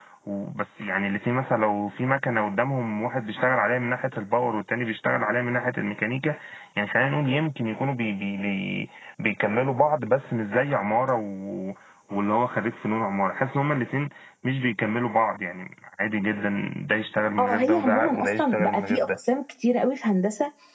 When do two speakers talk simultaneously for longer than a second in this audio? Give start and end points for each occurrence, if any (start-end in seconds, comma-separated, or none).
17.4-19.2